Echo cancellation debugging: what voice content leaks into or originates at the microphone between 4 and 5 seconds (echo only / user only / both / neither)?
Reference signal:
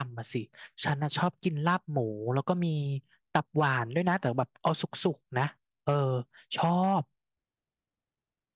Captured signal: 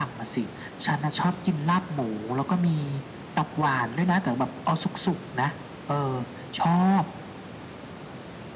echo only